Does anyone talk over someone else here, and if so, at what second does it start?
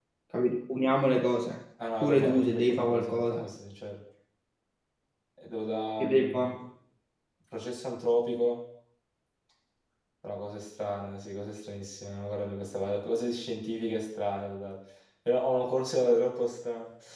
2.0 s

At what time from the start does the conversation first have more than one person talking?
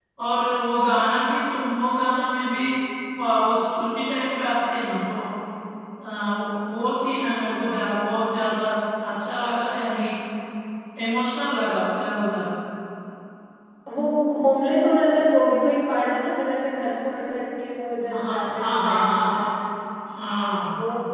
18.1 s

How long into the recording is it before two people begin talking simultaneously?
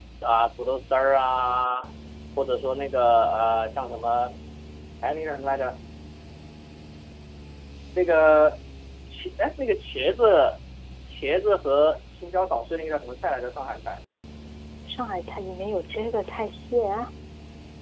none

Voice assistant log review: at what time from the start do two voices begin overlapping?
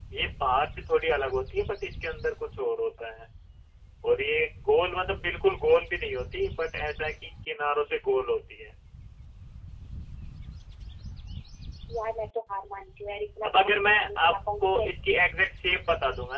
13.4 s

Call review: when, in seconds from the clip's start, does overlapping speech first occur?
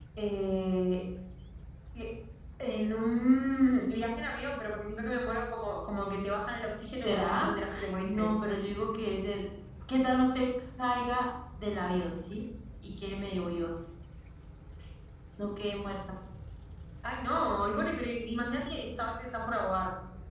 7.0 s

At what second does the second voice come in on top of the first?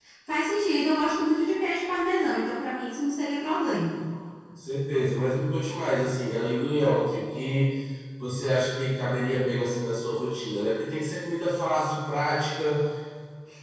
none

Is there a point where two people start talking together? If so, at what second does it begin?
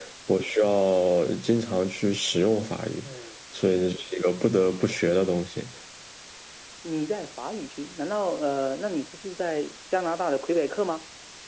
none

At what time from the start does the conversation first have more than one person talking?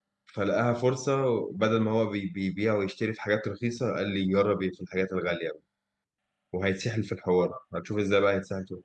none

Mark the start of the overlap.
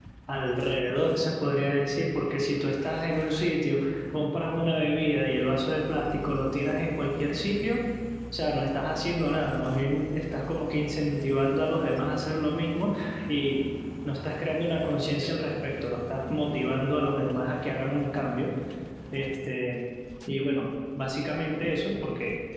none

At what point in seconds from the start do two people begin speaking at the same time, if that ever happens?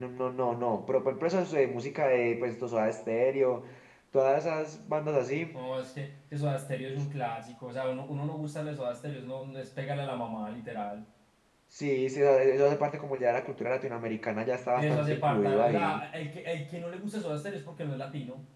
14.8 s

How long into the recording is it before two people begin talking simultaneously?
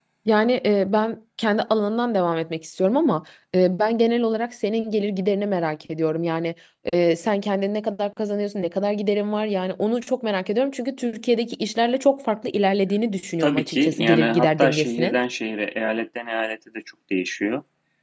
13.4 s

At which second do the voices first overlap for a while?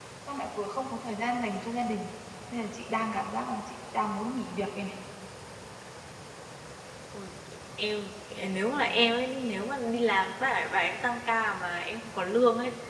none

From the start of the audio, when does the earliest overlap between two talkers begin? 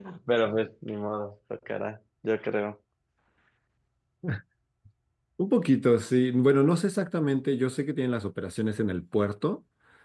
none

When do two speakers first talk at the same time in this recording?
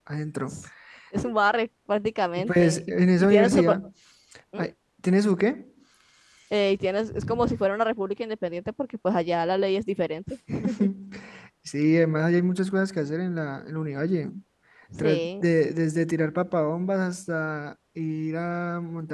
2.4 s

